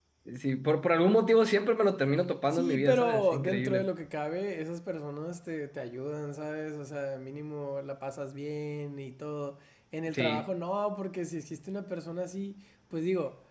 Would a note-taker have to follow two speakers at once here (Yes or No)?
Yes